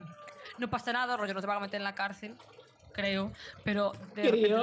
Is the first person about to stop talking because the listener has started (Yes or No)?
No